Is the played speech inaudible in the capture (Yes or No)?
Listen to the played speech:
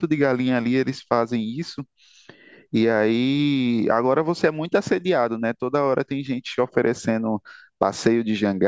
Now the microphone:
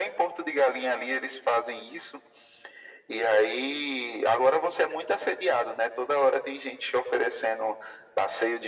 No